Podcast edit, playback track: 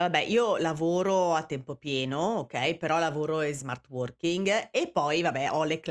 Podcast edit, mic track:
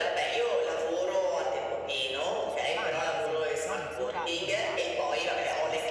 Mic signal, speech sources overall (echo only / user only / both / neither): both